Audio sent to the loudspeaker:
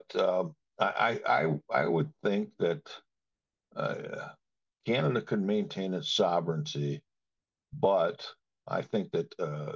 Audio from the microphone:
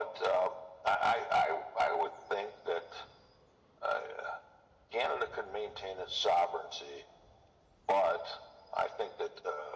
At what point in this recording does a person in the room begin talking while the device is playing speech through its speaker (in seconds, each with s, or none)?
none